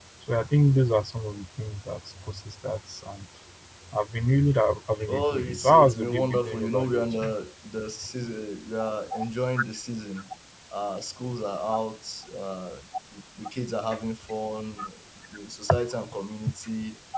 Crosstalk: present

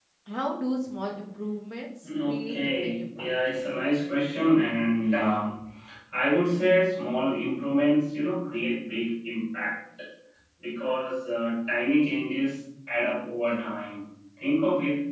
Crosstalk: present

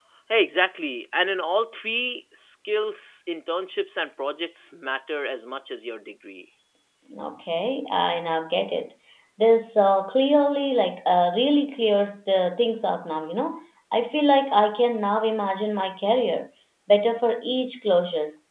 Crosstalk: none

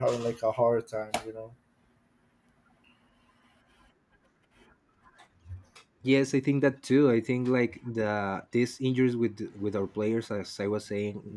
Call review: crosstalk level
none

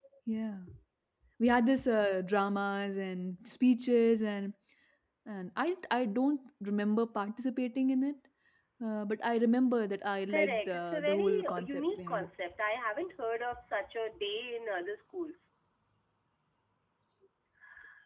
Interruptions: present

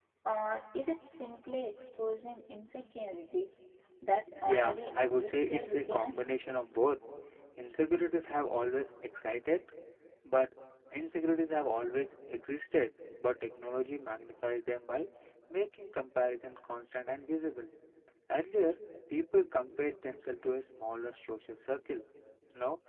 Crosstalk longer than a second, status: present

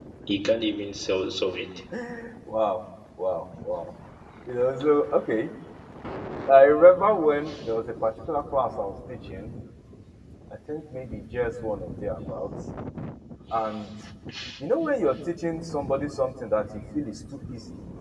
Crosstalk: none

